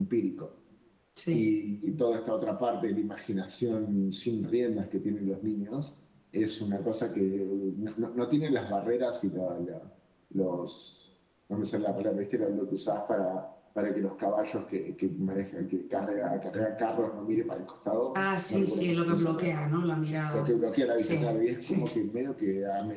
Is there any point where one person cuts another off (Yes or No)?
Yes